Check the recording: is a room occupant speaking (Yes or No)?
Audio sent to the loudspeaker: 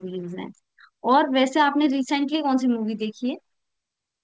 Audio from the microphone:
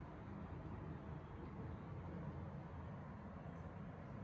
No